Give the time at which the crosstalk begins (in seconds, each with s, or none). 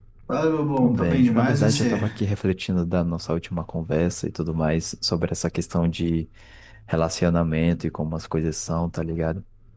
0.8 s